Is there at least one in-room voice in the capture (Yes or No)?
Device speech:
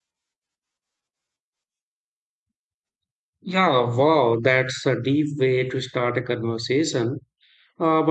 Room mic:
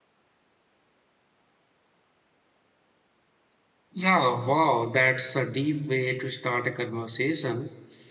No